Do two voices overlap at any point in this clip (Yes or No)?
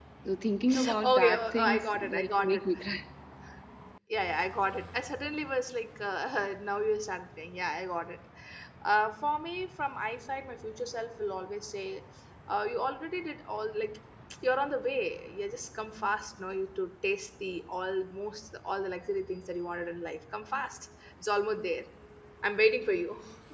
Yes